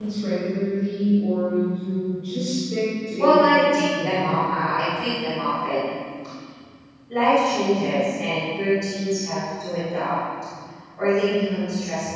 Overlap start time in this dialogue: 3.2 s

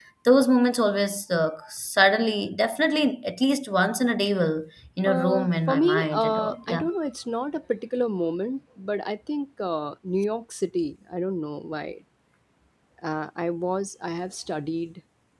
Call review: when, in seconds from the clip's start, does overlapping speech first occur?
5.0 s

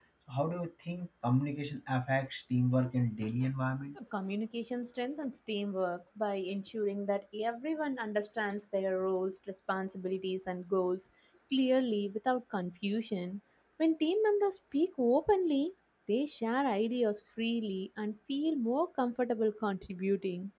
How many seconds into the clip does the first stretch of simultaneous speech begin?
none

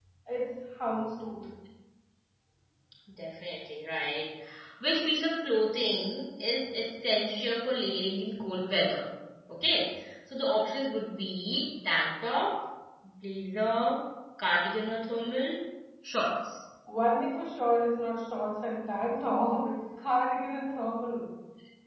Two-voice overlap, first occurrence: none

